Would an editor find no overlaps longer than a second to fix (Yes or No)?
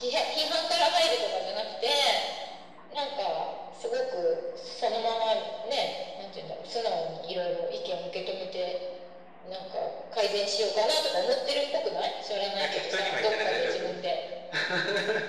No